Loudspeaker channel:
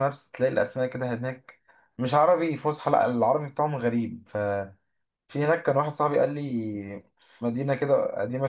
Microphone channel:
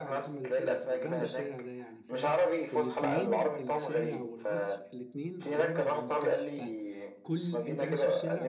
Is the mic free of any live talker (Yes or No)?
No